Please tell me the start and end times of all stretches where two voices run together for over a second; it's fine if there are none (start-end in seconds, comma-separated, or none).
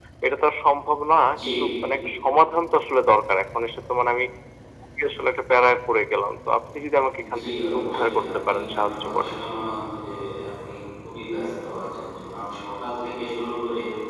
7.4-9.3